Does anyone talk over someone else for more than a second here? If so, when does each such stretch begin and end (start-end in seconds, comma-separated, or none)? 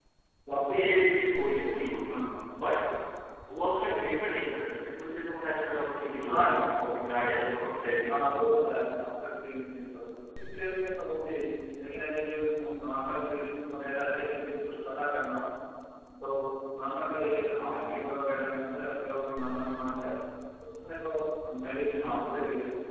none